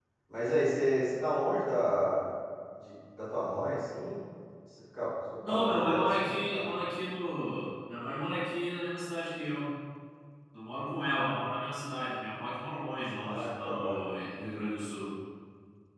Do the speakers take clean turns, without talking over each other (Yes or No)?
No